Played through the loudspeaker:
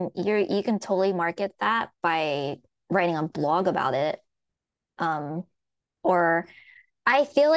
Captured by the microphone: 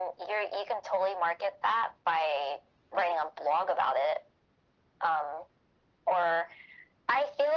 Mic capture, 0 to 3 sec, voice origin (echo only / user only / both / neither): echo only